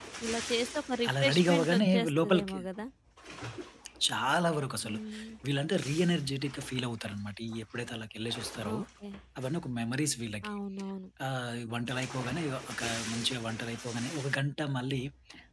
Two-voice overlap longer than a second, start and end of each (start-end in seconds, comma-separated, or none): 1.1-2.6